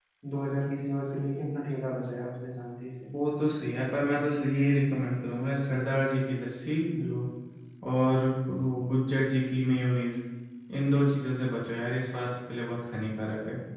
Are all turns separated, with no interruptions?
Yes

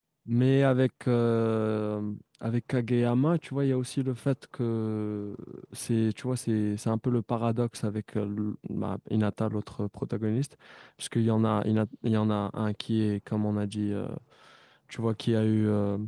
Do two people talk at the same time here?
No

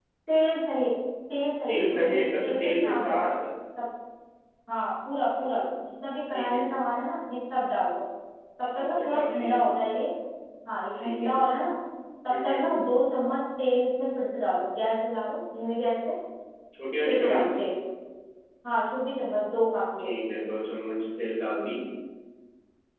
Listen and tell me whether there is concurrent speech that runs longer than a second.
Yes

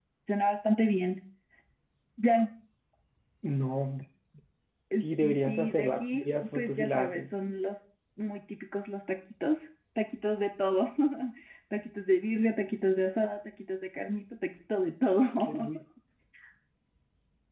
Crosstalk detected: Yes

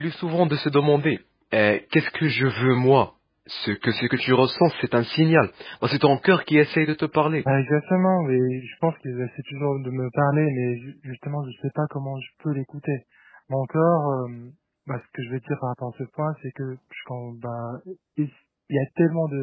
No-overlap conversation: Yes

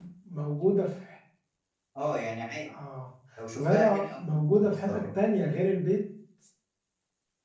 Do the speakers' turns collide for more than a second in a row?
Yes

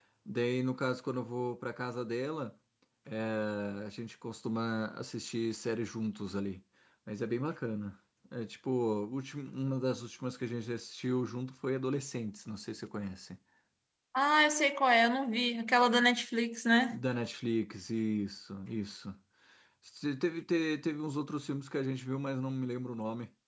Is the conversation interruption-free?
Yes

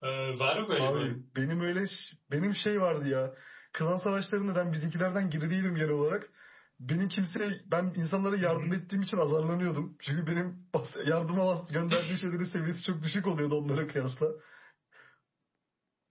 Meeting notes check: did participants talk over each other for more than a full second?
No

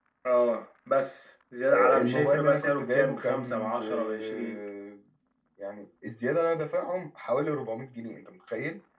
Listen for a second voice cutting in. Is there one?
Yes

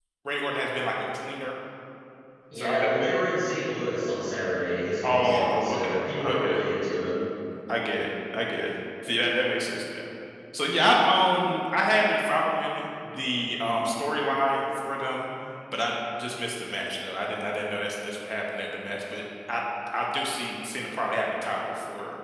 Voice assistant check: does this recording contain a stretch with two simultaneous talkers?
Yes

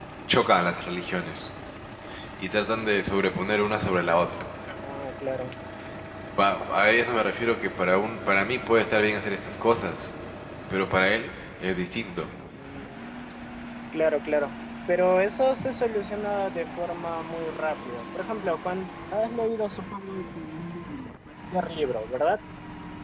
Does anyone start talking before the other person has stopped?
No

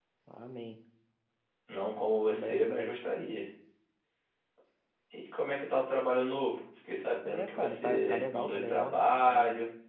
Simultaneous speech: Yes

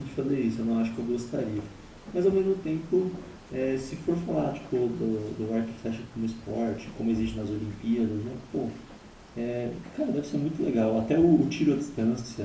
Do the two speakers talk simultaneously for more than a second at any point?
No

